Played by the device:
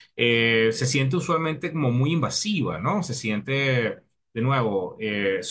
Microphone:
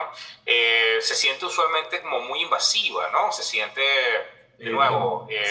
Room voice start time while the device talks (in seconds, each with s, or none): 4.6 s